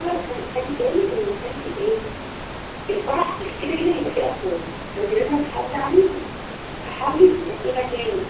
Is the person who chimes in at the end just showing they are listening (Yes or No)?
Yes